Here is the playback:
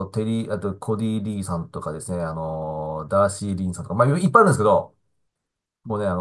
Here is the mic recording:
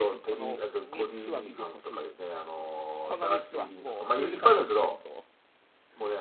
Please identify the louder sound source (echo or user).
echo